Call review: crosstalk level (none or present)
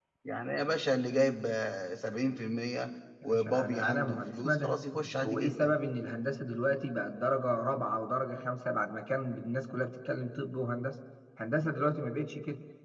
present